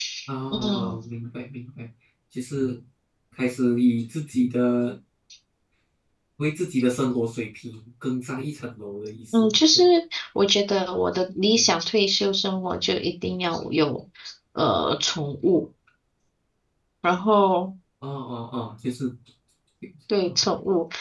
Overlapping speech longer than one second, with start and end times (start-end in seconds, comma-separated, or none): none